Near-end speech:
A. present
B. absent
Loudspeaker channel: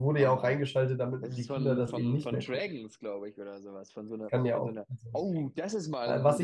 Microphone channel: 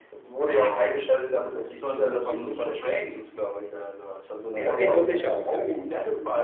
A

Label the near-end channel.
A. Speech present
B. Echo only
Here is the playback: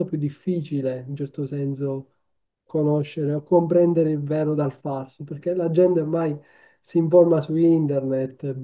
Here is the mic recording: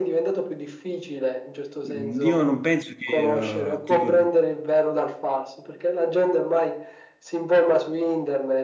A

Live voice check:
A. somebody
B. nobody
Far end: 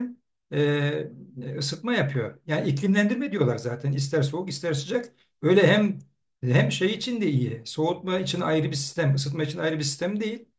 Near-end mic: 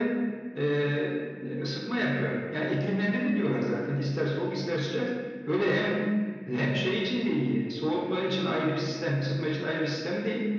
B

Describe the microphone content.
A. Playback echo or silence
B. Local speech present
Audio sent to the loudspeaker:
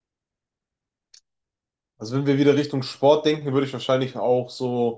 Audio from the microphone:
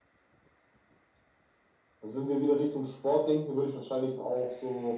A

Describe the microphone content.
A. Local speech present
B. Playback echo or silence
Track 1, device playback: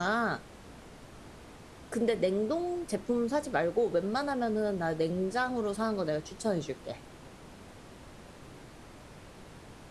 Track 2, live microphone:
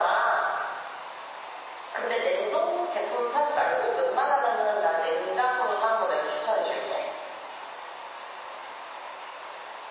B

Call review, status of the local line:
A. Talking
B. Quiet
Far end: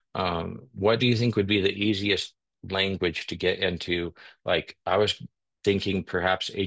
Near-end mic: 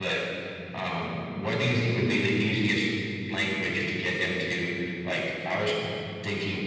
B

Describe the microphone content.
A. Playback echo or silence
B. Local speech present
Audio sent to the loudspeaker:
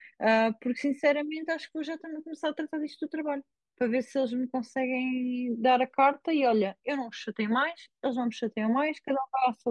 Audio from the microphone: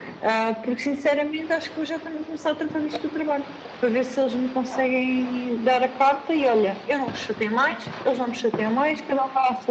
A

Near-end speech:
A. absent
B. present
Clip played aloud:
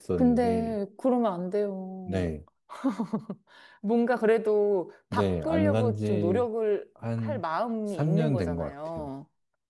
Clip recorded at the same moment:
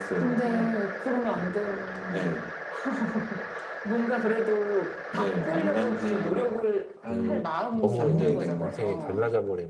B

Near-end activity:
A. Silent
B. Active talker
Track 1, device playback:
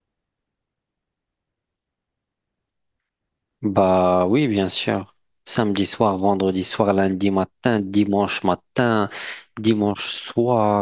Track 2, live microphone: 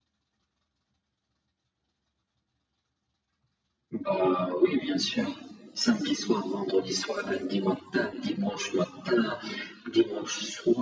A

